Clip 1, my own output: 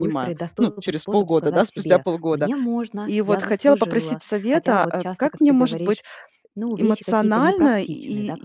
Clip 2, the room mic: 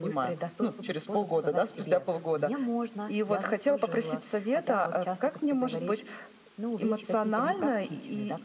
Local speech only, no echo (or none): none